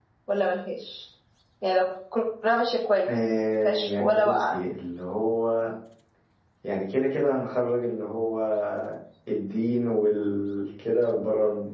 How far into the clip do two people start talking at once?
3 s

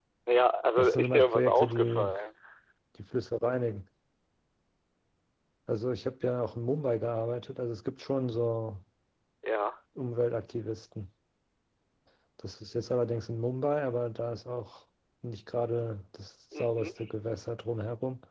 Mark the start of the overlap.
1 s

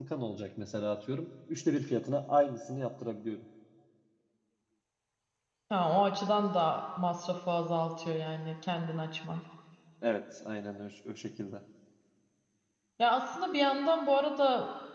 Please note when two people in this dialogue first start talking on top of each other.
none

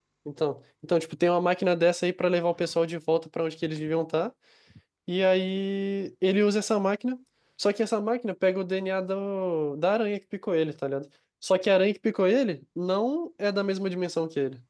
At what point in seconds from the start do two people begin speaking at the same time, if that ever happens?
none

